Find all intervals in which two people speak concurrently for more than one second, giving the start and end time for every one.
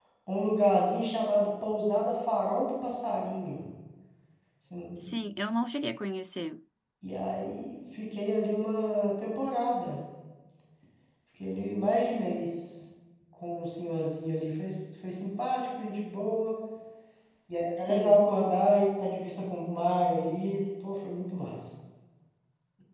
none

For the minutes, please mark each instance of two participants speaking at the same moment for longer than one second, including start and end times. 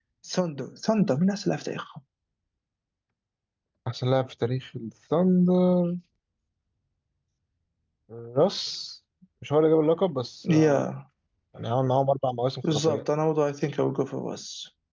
none

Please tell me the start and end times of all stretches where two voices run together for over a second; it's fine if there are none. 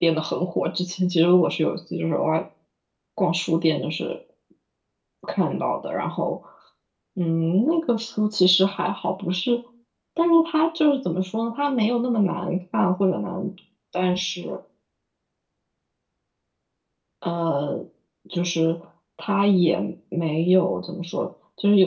none

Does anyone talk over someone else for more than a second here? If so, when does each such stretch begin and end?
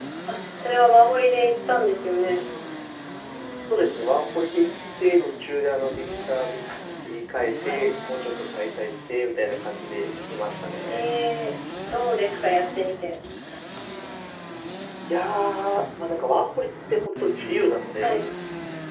none

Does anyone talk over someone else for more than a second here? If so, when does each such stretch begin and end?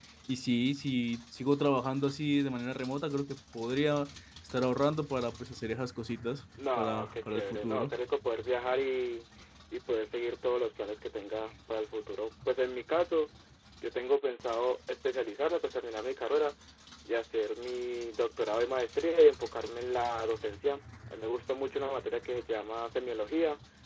6.8-8.0

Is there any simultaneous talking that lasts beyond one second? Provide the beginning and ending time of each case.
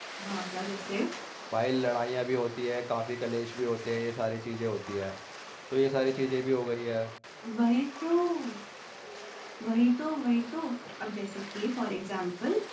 none

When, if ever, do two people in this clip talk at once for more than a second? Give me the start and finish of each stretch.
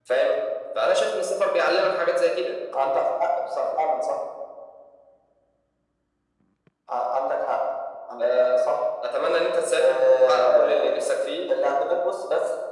9.8-11.0

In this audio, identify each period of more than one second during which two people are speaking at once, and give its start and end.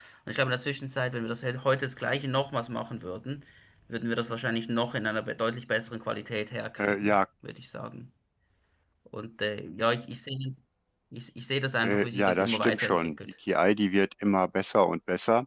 11.8-13.2

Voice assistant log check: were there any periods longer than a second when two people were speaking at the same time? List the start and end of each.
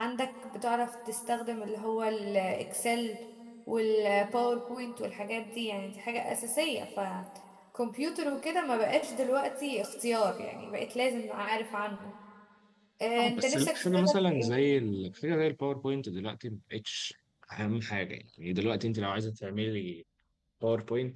13.2-14.5

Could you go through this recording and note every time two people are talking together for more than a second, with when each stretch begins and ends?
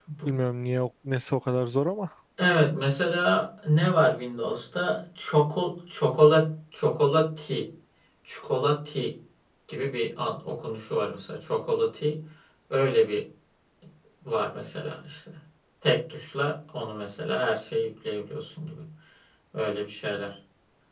none

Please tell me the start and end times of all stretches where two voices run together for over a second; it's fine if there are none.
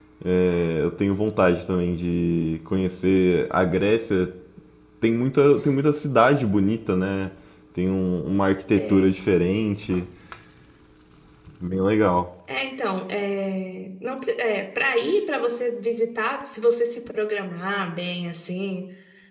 none

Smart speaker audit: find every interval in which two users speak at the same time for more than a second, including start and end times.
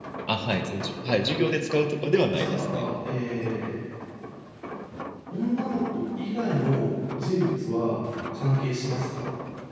none

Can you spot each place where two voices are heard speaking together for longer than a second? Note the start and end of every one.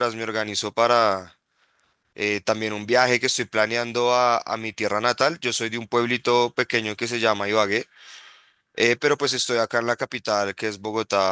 none

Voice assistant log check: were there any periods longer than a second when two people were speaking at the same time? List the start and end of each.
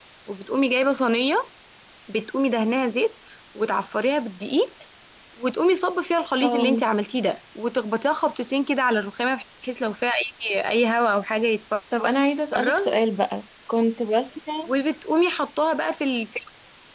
none

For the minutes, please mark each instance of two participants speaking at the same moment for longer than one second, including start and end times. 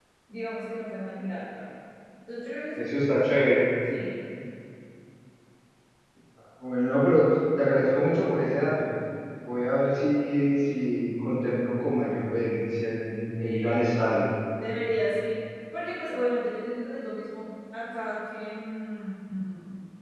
none

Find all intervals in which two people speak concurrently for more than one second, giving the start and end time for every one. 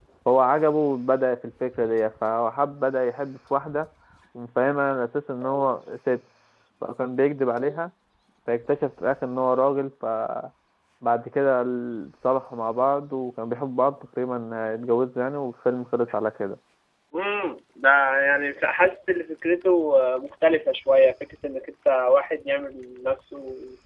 none

